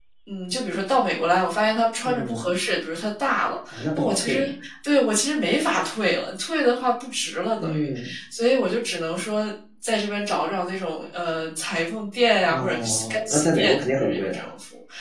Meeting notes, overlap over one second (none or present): present